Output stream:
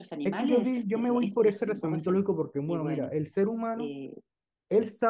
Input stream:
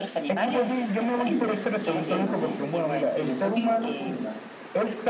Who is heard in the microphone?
both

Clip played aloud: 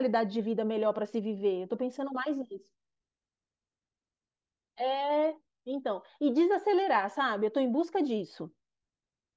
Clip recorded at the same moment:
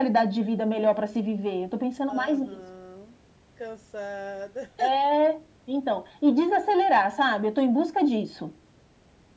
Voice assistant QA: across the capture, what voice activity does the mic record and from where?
both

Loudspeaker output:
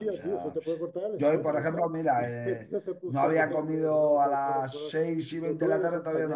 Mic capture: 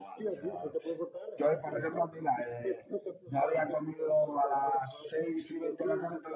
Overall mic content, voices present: echo only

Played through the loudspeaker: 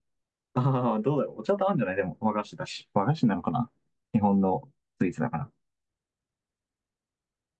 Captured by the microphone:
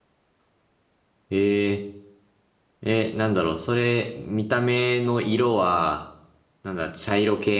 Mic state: user only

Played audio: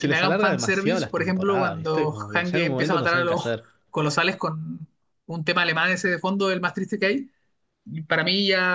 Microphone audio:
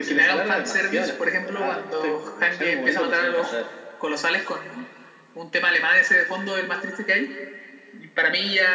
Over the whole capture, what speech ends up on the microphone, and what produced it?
echo only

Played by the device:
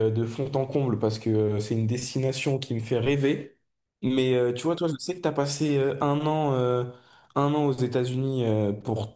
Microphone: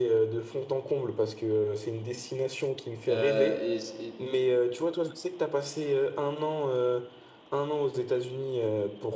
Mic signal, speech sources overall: both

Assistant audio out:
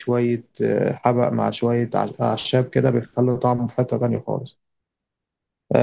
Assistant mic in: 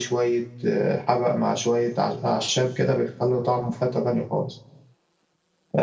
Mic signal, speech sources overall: echo only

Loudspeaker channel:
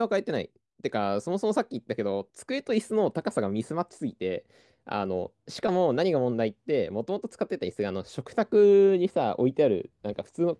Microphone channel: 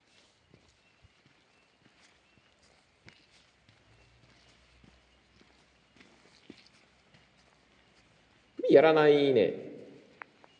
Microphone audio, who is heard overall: user only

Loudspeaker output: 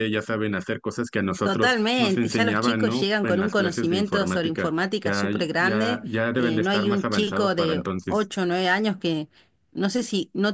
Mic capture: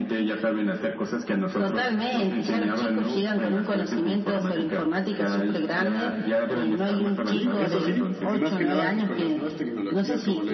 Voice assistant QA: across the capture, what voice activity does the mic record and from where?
both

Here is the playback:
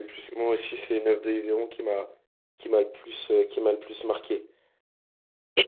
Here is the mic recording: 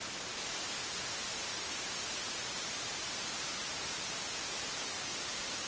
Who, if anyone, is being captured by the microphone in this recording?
neither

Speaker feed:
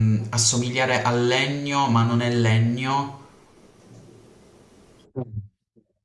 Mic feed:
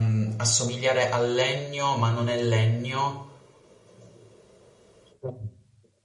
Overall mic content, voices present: echo only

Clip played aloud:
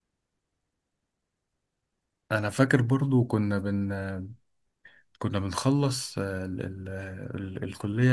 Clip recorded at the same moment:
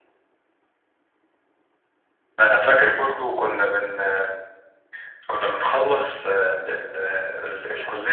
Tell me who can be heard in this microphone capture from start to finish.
echo only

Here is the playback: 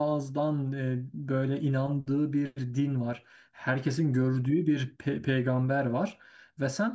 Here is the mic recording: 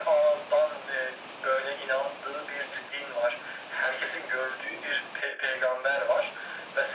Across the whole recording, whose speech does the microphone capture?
echo only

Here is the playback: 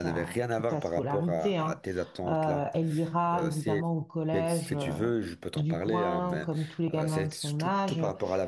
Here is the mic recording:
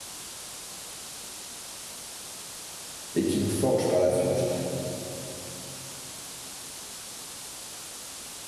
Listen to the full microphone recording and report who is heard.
user only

